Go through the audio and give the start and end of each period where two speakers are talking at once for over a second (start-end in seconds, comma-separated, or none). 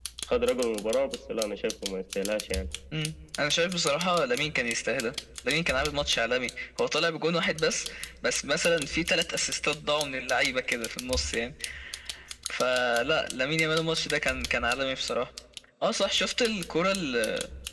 none